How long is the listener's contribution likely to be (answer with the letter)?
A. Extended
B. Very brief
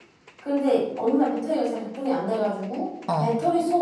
B